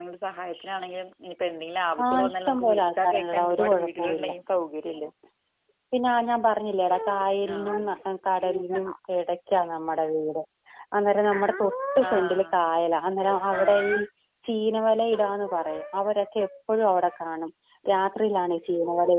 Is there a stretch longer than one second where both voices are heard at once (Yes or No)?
Yes